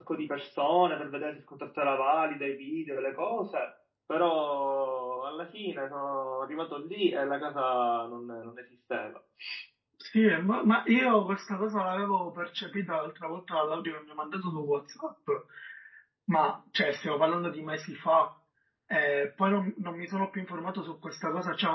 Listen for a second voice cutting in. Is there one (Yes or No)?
No